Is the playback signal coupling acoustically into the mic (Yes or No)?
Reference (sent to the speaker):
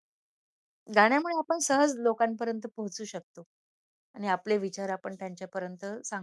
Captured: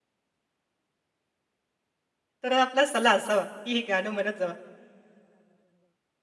No